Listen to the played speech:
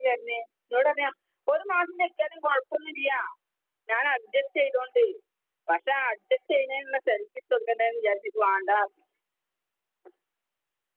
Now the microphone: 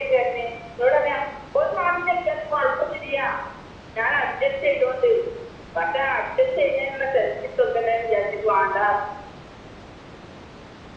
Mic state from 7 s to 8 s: echo only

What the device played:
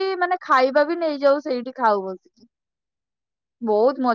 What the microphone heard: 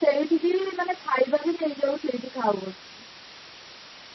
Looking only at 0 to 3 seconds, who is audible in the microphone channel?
echo only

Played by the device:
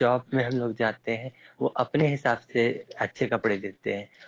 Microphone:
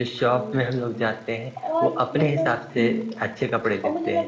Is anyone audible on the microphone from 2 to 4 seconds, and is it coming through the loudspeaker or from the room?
both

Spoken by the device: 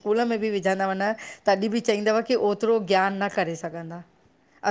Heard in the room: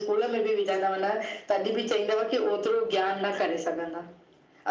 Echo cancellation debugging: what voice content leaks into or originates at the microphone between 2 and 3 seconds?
echo only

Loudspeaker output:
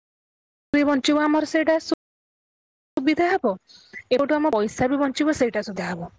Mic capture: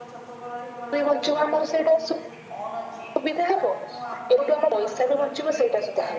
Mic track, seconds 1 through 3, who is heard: both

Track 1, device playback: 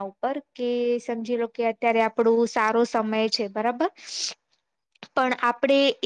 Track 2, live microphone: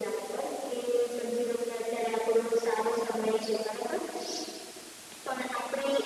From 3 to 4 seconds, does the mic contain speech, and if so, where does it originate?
echo only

